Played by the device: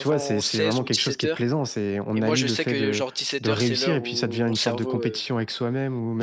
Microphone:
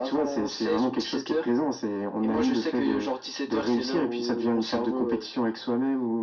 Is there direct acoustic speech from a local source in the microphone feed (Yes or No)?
No